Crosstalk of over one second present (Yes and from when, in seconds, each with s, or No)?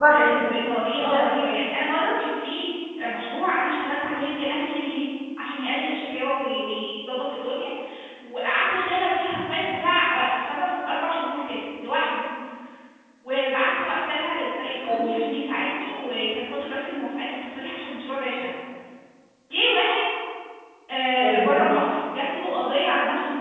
No